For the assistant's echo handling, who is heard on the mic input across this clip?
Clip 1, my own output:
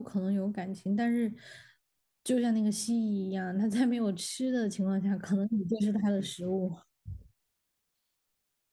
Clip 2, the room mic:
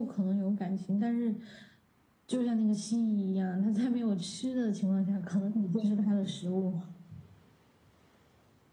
echo only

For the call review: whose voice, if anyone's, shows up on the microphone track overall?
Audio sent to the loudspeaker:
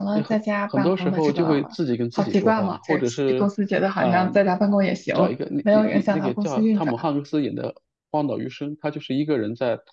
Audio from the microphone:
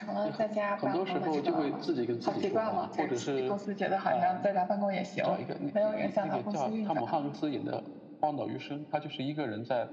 echo only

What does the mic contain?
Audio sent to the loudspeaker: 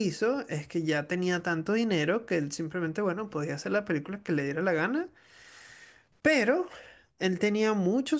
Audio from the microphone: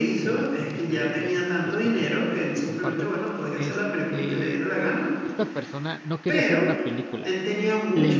both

